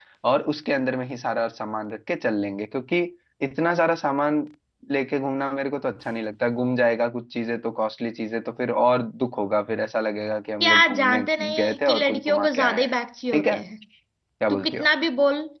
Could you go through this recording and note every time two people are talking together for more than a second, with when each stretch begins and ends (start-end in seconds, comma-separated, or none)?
10.6-12.9